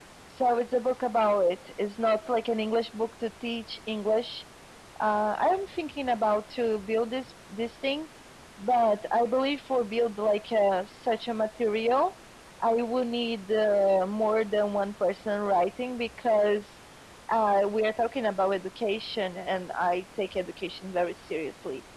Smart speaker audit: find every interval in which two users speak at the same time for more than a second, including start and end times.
none

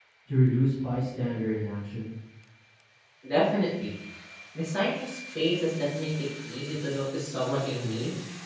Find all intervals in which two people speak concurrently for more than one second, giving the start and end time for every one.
none

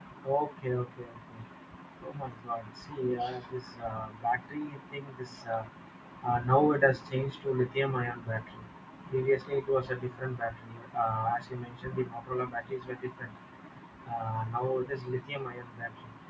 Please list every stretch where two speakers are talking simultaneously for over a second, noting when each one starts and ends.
none

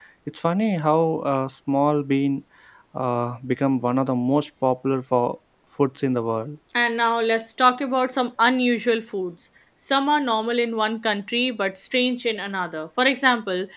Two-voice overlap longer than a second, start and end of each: none

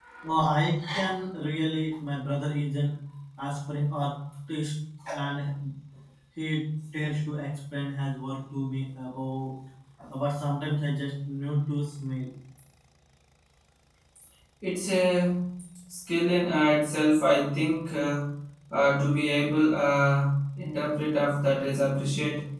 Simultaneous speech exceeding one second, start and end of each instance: none

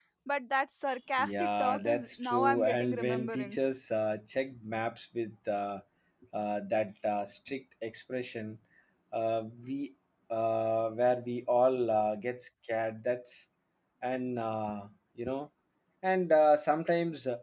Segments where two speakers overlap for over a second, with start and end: 1.2-3.6

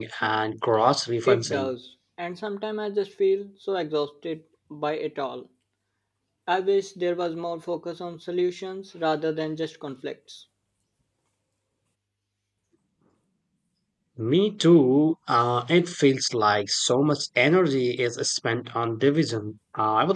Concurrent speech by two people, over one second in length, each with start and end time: none

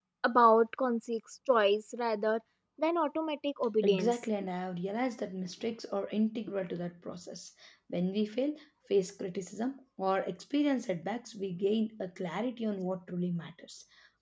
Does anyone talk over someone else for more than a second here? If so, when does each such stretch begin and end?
none

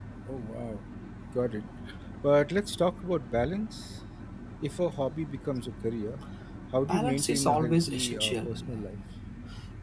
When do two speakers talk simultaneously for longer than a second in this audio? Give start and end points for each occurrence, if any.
6.9-8.8

